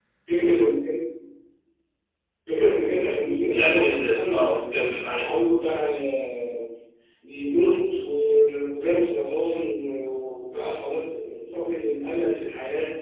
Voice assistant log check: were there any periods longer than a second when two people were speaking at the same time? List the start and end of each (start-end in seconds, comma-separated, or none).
3.5-5.2